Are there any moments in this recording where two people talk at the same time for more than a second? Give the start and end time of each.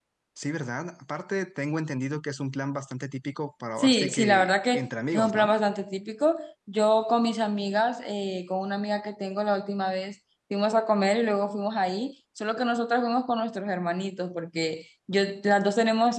3.8-5.5

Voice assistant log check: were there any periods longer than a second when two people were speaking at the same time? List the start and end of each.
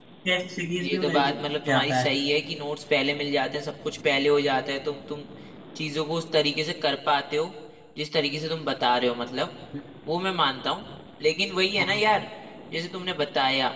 0.8-2.1

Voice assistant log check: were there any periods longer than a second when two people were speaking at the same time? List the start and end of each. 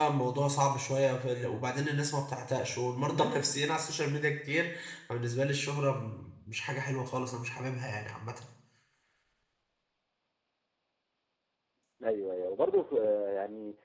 none

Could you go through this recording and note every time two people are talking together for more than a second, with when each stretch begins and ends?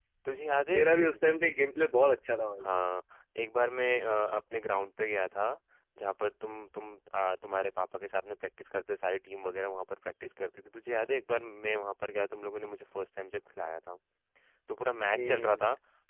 none

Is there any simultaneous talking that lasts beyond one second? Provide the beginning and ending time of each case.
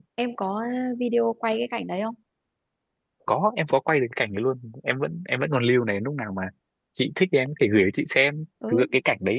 none

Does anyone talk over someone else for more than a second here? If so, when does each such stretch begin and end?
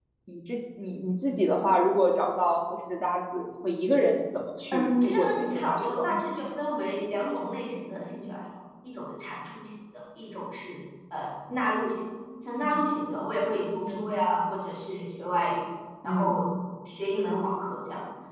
4.7-6.2

